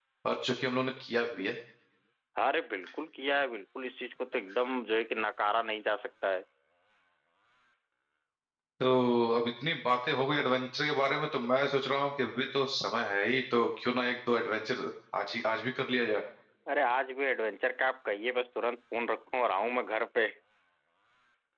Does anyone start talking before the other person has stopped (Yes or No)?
No